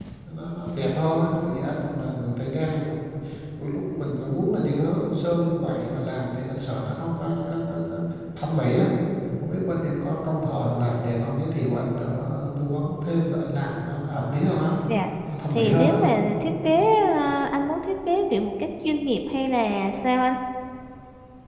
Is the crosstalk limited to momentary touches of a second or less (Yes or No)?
Yes